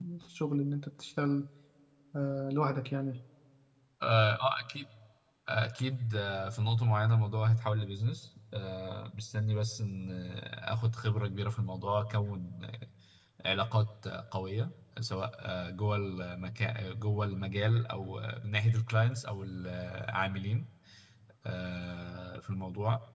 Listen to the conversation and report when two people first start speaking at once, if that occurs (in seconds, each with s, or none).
none